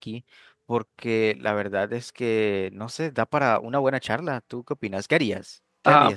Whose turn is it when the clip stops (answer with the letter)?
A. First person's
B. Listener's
B